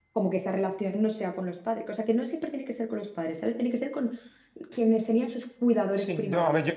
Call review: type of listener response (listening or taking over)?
taking over